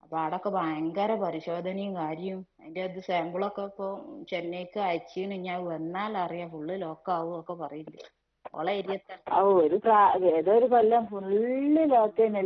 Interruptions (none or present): none